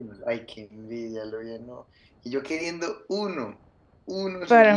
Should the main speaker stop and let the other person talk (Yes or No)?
Yes